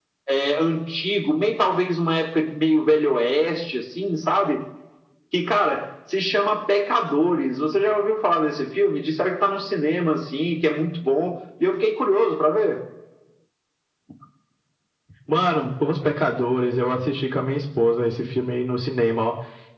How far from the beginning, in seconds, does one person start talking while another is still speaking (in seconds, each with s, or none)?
none